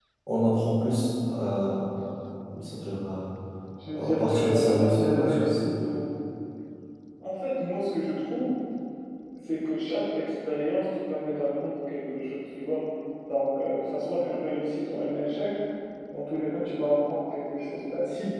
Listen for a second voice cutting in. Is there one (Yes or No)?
Yes